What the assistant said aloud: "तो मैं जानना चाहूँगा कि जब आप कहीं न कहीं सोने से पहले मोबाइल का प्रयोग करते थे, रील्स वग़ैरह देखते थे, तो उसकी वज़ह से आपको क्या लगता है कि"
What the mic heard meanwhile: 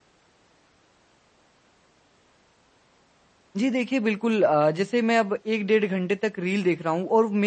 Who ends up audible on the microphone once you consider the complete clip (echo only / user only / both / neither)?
user only